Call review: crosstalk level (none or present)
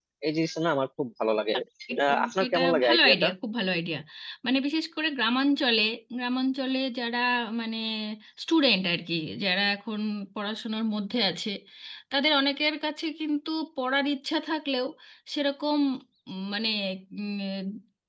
present